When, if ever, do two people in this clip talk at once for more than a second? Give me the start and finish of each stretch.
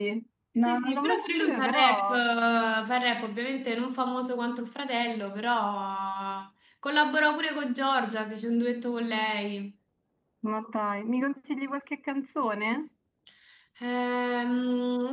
0.7-2.2

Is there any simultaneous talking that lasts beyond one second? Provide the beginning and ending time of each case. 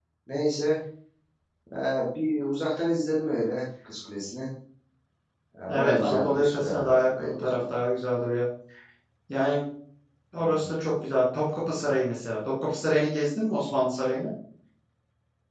5.7-7.6

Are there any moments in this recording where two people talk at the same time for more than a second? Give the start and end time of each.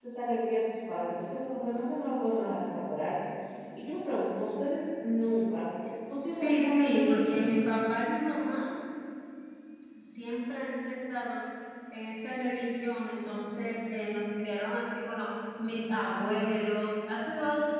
6.2-7.5

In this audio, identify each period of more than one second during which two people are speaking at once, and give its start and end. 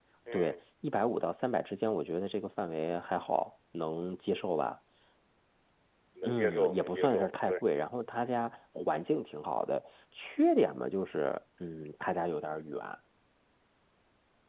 6.2-7.6

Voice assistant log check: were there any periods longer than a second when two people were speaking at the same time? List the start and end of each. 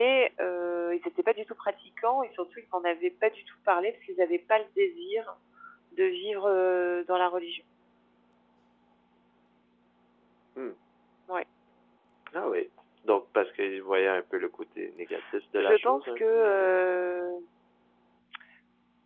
15.6-16.8

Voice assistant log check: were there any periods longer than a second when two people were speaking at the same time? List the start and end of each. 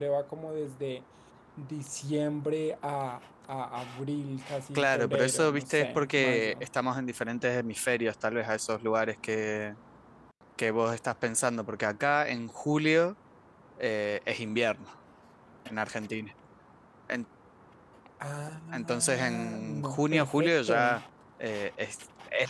4.8-6.7, 18.7-20.8

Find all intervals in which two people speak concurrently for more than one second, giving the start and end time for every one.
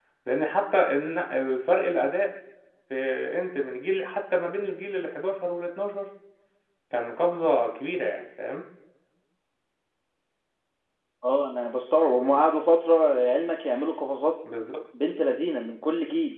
none

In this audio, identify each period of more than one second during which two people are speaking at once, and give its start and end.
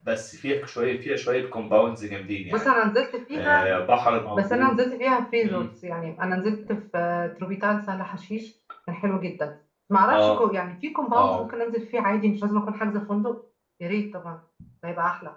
none

